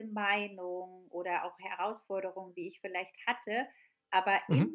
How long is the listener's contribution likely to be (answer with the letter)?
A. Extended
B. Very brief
B